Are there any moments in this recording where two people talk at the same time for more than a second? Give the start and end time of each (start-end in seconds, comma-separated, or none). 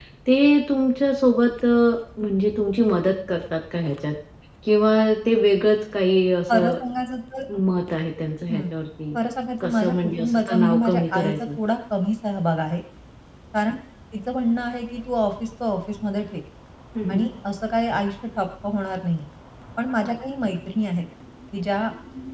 9.6-11.5